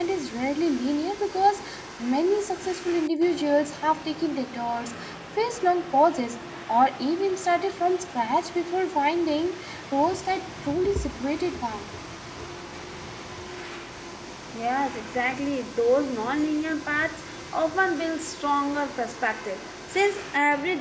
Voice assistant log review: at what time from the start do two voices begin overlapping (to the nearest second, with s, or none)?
none